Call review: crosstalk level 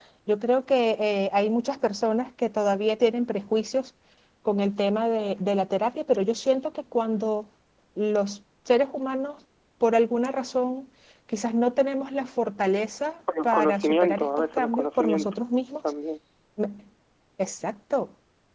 present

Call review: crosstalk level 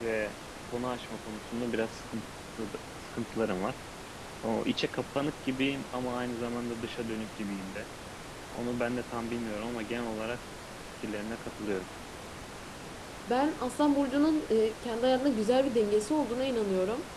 none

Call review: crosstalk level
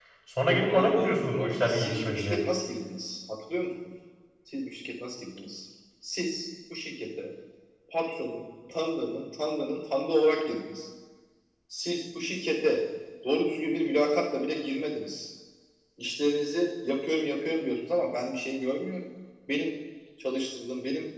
present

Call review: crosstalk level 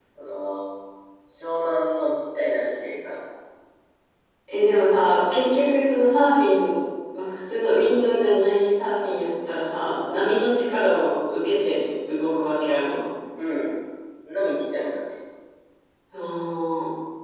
none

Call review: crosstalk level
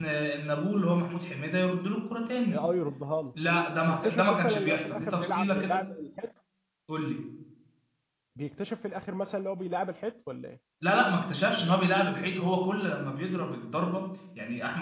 present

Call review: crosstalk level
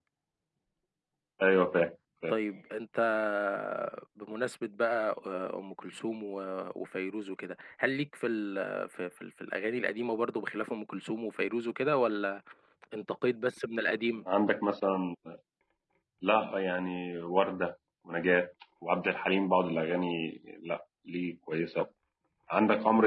none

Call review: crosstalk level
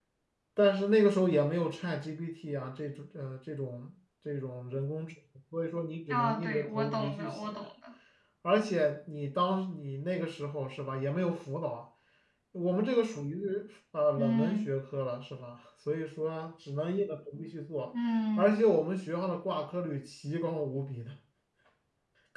present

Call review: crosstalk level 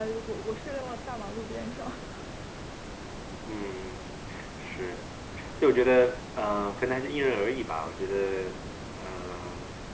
none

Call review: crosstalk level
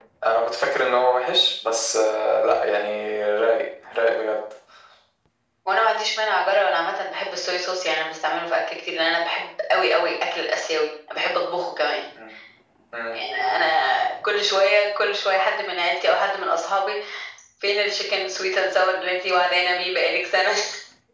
none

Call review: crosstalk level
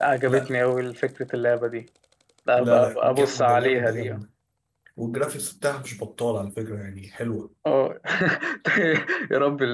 present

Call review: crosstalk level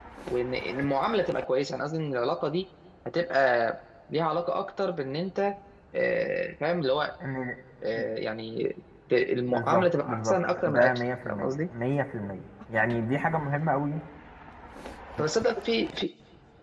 present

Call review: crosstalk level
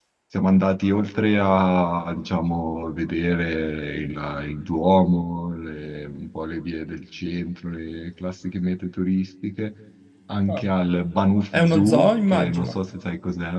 present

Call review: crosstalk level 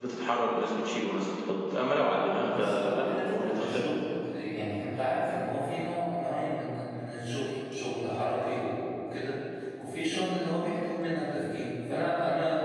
present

